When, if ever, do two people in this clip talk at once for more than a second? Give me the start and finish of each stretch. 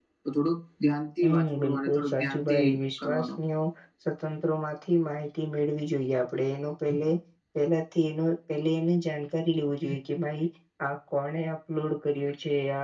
1.2-2.6

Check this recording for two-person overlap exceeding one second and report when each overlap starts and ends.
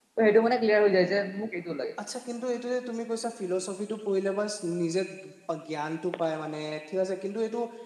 none

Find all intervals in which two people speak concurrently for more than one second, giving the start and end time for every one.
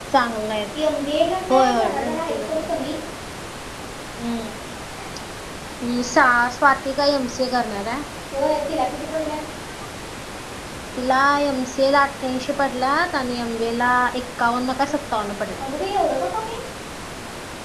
1.5-2.8

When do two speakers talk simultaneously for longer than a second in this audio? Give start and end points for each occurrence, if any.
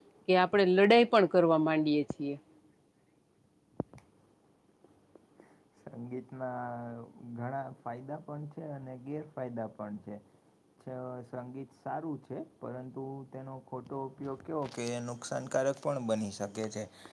none

